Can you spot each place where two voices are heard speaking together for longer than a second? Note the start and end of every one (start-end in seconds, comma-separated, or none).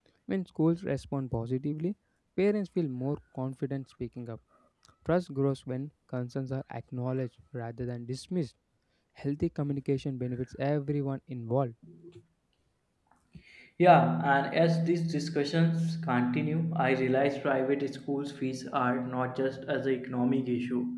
none